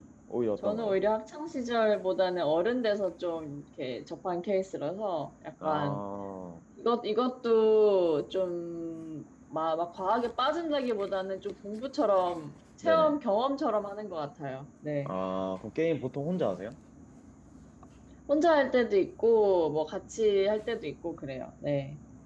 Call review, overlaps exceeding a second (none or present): none